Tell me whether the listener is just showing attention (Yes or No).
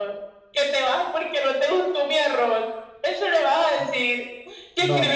Yes